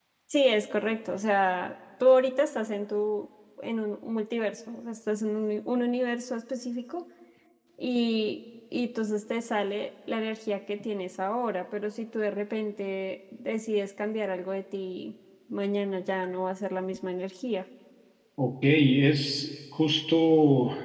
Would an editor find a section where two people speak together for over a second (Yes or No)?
No